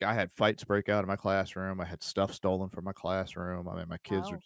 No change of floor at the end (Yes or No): Yes